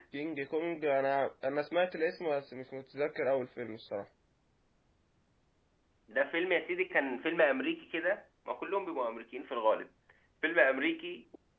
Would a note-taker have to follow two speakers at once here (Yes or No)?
No